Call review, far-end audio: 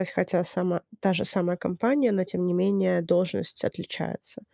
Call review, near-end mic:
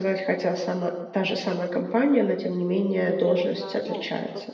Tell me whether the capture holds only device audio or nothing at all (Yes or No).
No